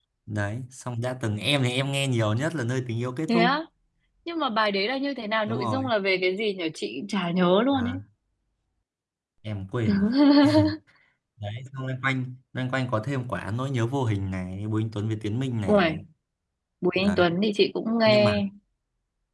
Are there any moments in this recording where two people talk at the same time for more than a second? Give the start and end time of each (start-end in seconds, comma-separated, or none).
none